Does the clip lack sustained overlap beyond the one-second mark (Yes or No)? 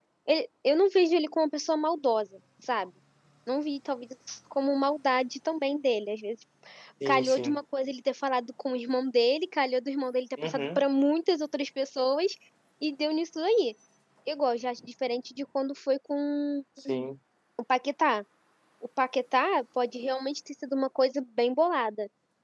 Yes